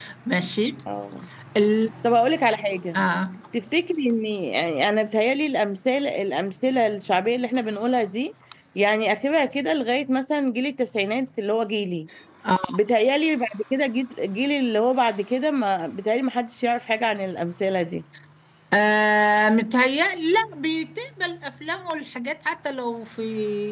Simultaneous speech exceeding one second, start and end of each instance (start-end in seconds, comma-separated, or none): none